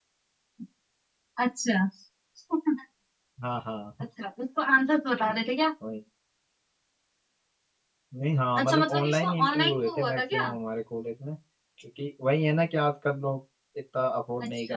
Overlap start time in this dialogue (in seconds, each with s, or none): 8.6 s